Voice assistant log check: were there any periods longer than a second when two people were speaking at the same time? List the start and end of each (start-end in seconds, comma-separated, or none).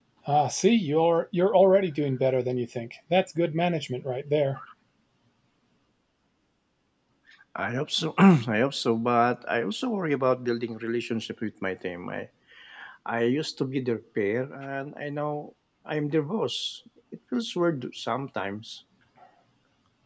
none